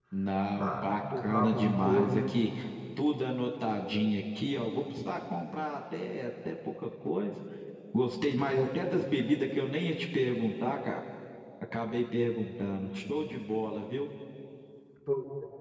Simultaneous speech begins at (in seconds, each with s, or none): 0.5 s